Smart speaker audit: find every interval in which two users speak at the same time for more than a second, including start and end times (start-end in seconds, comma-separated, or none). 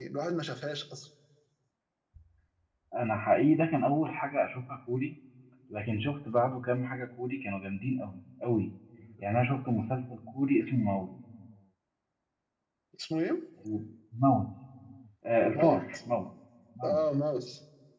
none